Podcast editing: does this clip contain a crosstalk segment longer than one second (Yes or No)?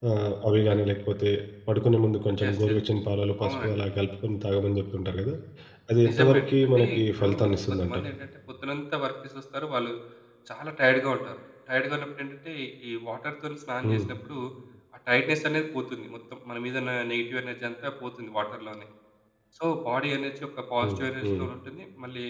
Yes